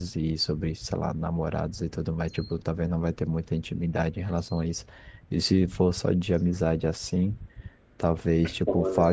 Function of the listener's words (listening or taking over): listening